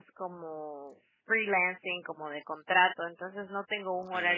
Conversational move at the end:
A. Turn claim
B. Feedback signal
B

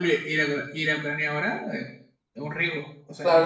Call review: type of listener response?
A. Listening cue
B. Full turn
B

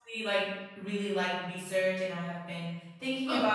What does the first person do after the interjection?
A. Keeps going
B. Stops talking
A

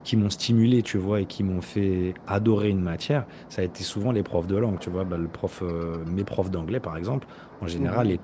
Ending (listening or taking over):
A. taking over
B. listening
B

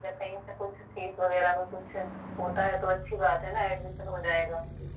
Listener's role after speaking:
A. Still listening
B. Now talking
B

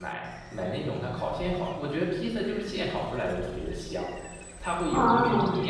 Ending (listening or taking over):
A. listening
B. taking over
A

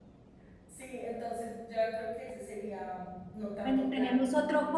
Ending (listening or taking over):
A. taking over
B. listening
A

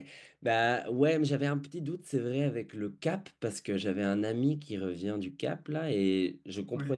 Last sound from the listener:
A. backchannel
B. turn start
A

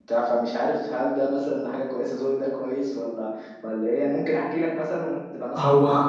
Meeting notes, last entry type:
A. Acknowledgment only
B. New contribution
B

